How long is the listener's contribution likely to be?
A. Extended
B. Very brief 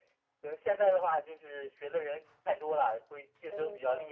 A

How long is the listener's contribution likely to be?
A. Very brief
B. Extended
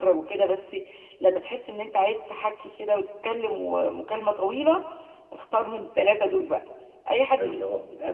A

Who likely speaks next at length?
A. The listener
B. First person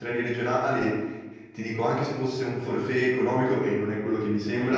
B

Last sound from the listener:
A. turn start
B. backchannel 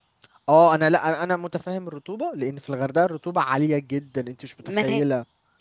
A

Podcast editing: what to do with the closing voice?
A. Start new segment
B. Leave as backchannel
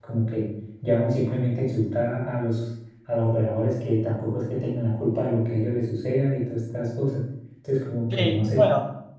A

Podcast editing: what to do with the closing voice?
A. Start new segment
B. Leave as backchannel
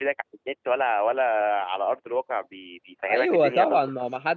A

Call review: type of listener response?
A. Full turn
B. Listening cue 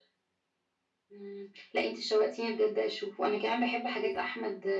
B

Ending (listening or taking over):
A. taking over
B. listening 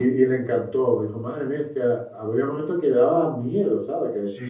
A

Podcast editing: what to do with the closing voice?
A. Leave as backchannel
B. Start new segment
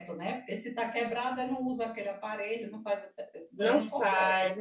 B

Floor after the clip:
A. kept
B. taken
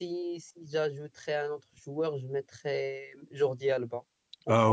B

